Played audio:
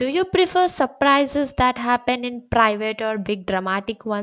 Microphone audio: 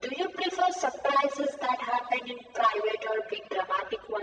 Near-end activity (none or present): none